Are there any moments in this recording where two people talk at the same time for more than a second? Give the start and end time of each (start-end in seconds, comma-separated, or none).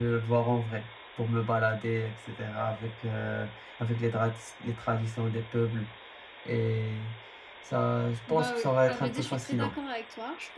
8.3-9.7